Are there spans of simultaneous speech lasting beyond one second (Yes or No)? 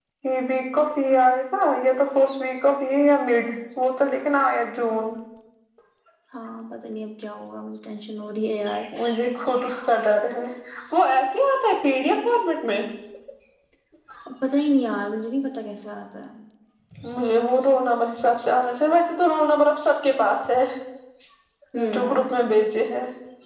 No